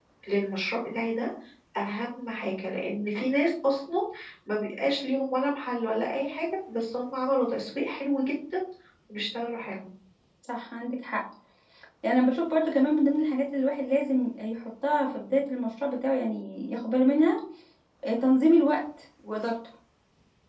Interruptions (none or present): none